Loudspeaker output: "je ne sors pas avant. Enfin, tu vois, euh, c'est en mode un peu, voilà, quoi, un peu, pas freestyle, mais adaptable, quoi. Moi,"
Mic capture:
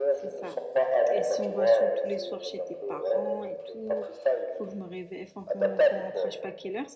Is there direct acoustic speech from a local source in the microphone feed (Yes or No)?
Yes